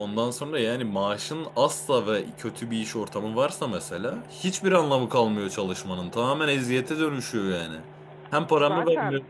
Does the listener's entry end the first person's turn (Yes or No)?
No